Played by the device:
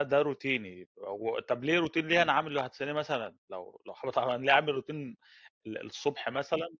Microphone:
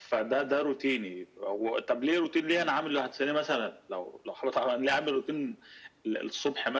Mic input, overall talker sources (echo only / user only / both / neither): echo only